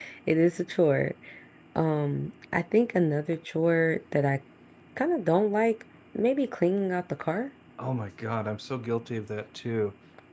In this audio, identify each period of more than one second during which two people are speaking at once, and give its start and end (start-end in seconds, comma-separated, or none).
none